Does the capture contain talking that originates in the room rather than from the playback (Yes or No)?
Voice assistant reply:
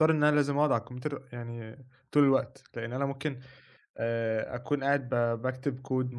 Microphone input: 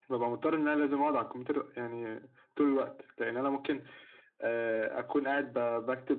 No